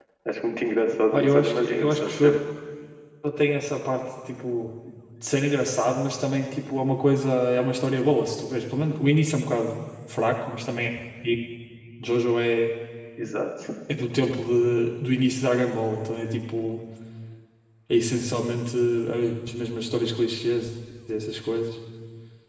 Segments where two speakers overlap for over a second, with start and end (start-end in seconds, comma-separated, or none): 1.1-2.4